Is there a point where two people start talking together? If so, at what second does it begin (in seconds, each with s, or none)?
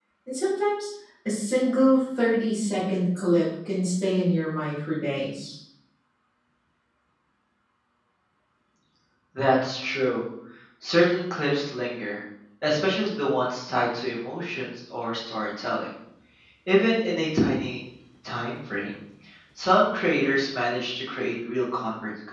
none